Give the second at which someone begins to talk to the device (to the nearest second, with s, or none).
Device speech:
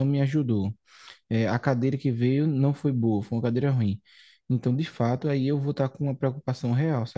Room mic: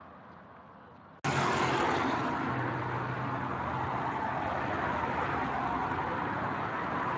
none